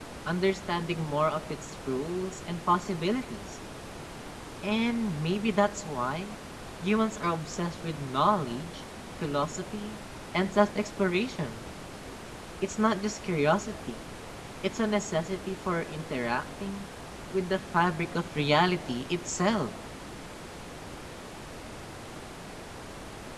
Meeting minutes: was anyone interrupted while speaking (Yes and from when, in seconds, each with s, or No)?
No